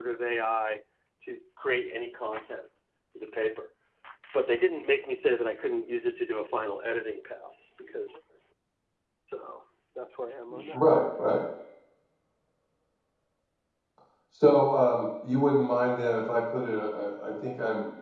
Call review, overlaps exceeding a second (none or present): none